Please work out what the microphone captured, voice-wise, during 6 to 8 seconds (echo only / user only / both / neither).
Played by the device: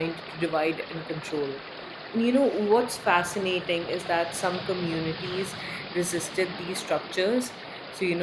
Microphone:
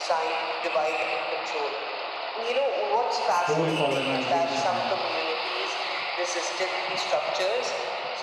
echo only